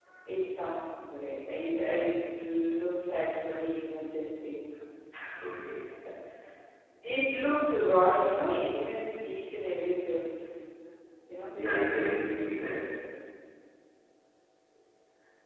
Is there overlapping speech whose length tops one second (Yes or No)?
No